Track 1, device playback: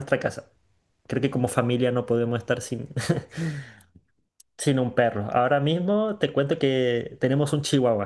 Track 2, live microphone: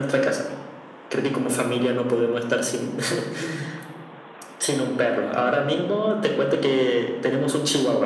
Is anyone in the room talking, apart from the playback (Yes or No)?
No